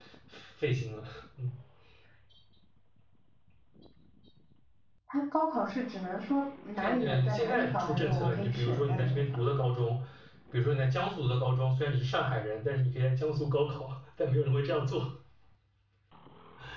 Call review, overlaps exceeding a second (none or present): present